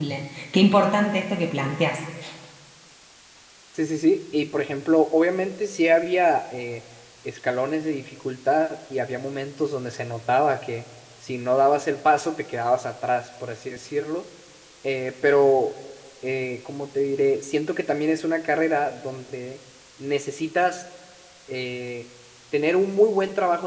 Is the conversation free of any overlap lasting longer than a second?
Yes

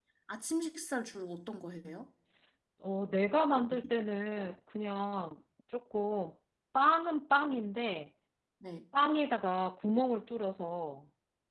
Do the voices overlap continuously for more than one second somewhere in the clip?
No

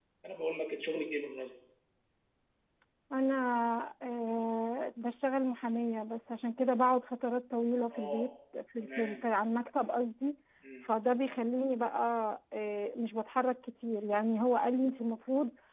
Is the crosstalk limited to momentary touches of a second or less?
Yes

